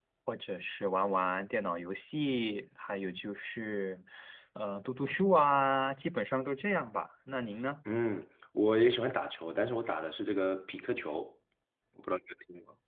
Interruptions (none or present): none